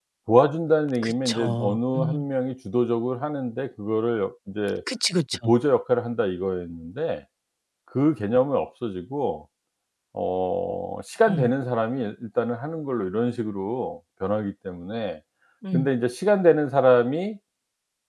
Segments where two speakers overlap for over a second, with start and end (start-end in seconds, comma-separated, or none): 1.0-2.2